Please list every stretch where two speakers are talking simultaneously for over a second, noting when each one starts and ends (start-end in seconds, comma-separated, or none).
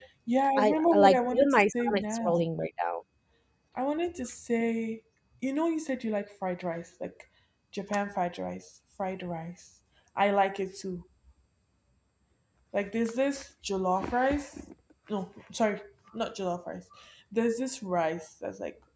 0.6-2.4